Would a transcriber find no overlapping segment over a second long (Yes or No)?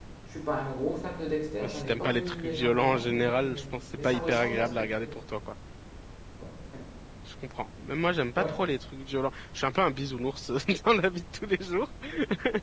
No